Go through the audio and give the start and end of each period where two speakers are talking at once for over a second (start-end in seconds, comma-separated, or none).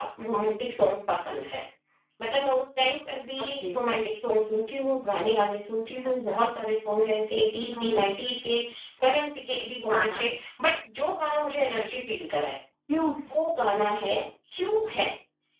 none